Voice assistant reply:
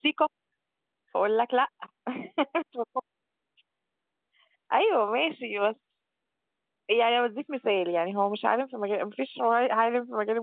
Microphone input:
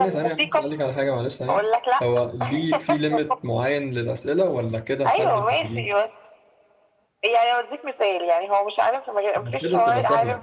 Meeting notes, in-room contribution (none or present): present